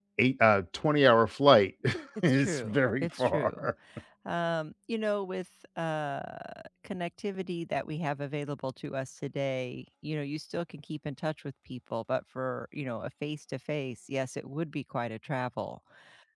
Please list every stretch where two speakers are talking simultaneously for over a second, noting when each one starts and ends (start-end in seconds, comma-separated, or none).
2.2-3.7